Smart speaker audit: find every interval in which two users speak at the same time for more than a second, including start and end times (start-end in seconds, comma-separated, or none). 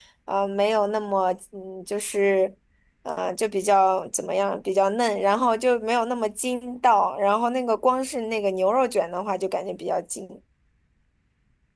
none